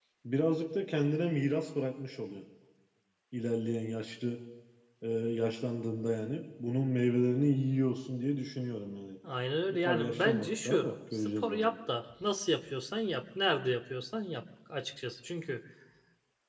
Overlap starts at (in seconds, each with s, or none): 9.7 s